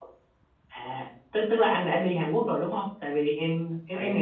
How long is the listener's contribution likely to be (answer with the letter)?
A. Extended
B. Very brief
B